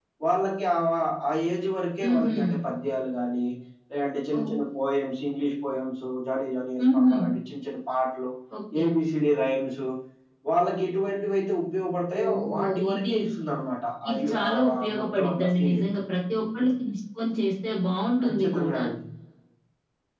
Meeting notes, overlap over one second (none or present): present